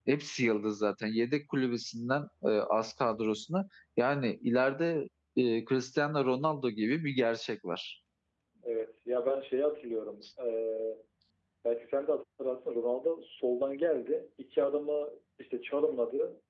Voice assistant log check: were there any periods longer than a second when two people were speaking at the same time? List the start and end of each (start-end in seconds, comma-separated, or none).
none